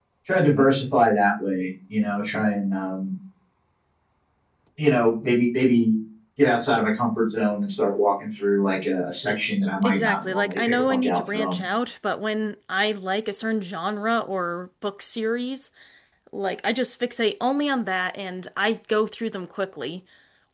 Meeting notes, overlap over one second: present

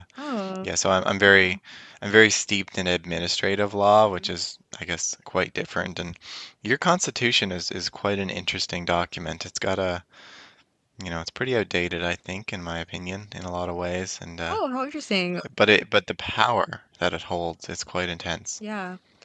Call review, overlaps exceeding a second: none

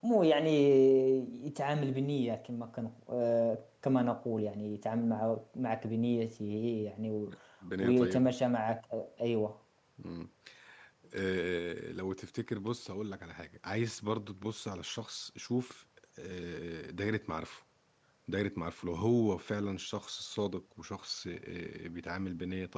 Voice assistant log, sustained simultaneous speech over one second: none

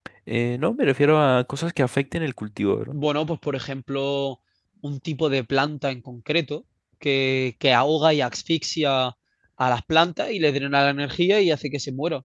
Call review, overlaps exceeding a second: none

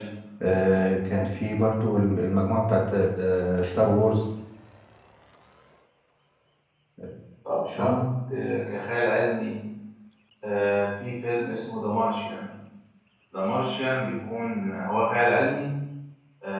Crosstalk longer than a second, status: none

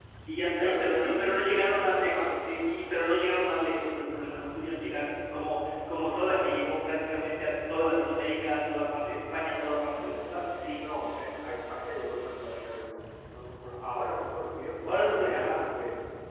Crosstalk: present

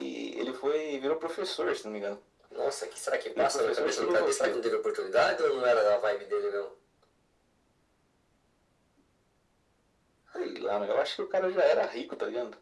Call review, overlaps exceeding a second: present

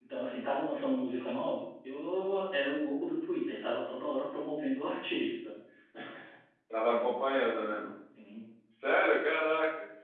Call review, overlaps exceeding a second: none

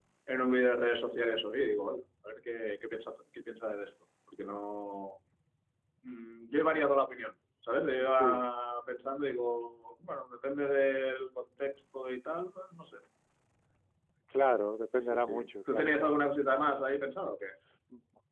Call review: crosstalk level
present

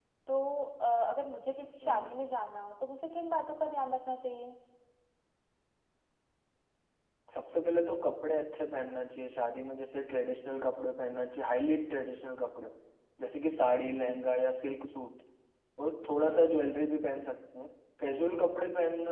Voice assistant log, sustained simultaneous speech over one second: none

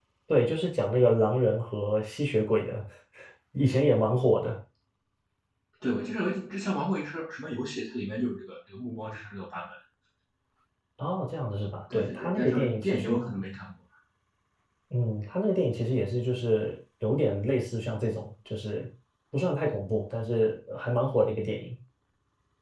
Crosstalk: present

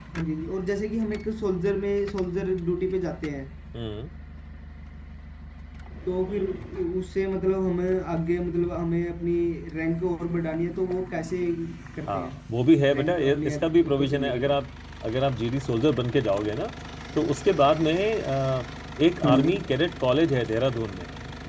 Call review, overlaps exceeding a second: present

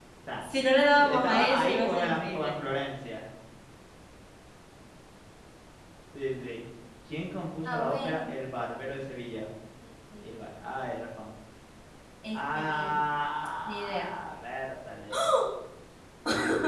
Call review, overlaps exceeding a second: present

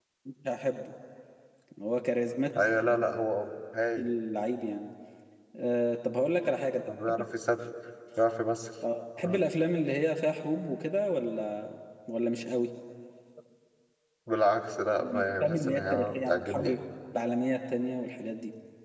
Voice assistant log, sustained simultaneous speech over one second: present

